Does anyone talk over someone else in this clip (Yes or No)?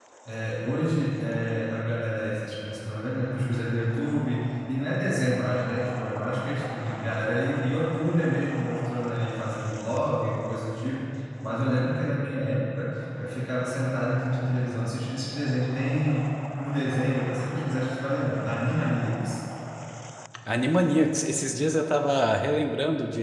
No